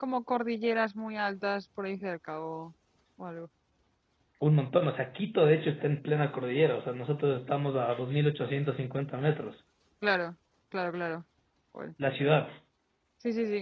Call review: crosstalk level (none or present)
none